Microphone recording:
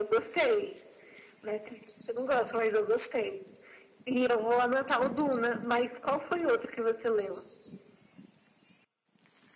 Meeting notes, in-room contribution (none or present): none